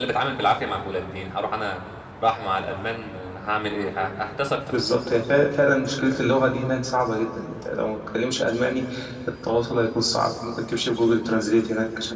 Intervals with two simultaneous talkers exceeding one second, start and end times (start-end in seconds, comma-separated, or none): none